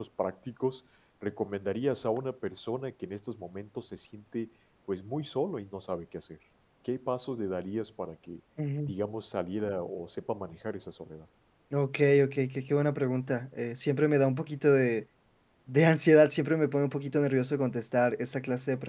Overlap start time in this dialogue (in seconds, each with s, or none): none